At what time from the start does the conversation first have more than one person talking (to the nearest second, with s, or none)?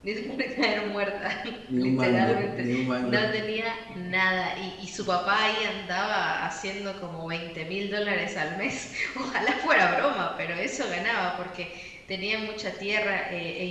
2 s